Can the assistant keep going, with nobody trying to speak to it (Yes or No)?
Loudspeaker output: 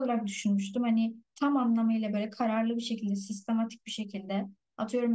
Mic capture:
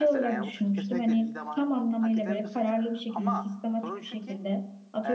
No